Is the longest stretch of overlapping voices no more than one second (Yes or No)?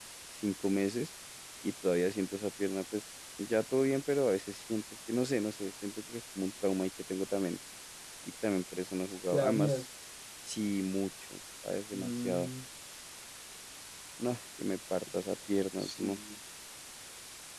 Yes